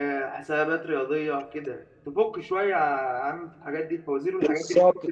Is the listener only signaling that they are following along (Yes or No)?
No